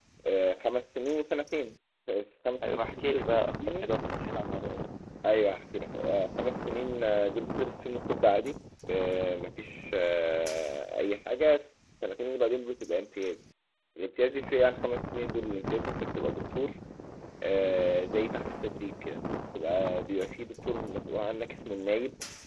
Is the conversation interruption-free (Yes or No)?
No